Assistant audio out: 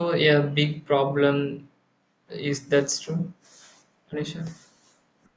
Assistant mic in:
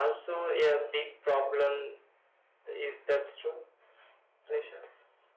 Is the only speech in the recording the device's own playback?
Yes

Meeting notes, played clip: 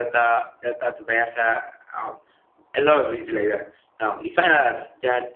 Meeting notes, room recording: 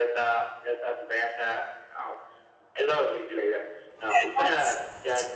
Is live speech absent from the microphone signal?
No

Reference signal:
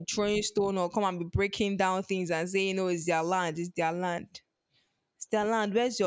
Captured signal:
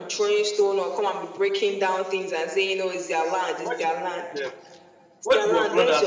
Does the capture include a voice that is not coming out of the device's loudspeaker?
Yes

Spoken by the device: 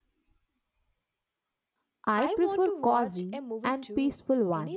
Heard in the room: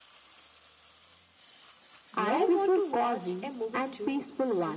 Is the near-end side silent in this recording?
No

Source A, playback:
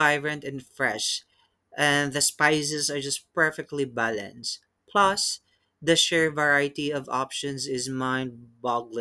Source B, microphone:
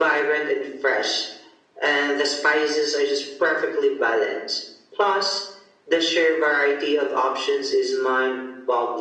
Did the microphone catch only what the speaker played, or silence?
Yes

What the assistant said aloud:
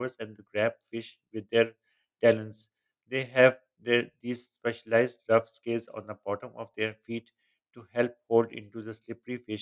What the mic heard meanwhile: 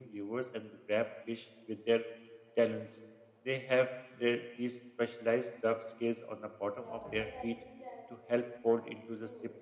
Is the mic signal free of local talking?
No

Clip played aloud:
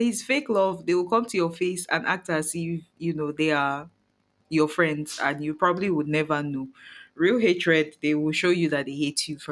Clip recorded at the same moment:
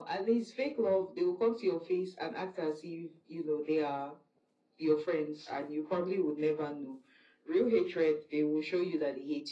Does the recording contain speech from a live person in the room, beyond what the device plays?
No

